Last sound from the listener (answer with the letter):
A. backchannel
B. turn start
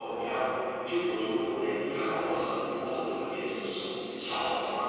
A